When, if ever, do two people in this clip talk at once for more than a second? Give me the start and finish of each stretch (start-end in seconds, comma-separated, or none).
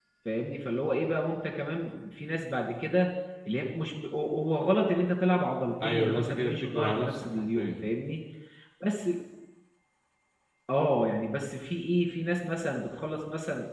5.8-7.9